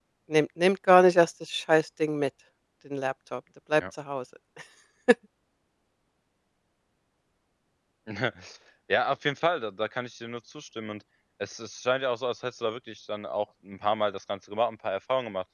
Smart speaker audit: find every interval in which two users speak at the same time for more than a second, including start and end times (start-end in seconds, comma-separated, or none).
none